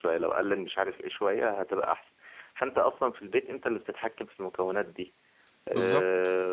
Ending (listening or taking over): listening